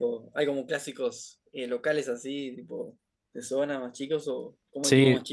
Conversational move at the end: taking over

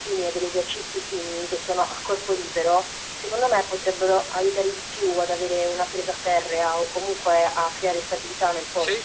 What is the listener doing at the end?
taking over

